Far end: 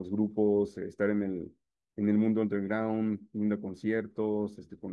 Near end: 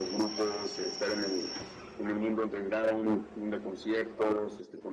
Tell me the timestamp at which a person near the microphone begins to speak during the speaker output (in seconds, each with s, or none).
none